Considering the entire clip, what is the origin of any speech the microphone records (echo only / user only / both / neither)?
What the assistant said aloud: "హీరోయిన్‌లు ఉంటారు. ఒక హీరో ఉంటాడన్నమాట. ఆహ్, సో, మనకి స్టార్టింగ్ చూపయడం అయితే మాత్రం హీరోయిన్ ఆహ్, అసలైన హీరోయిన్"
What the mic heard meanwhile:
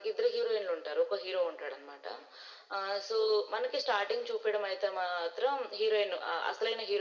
echo only